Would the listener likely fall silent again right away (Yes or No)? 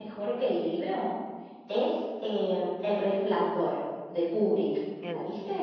No